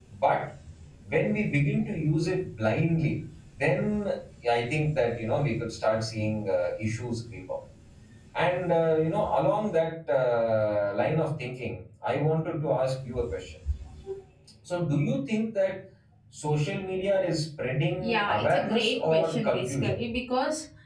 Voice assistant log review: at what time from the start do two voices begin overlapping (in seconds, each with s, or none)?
18.0 s